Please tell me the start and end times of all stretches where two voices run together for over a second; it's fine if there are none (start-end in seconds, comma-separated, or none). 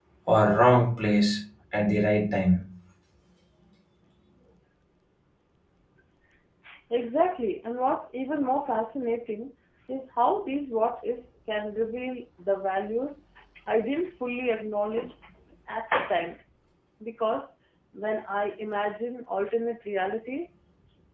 none